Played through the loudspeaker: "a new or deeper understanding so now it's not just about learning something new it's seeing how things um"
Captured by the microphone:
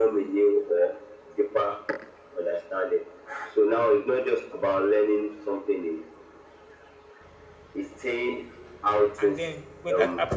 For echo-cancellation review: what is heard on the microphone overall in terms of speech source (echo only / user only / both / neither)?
both